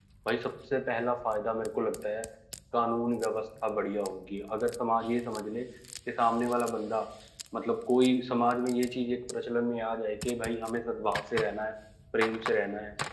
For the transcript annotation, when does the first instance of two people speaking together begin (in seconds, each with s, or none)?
none